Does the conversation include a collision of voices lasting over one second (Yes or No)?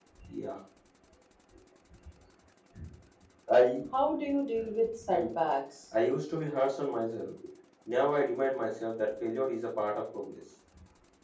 No